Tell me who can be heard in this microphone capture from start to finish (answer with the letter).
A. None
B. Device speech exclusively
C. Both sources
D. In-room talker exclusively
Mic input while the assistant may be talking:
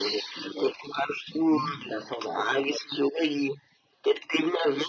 C